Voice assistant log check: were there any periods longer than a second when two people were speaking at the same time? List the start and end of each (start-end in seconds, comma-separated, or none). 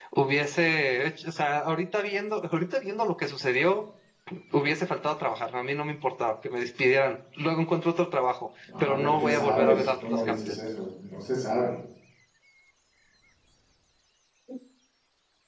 8.8-10.6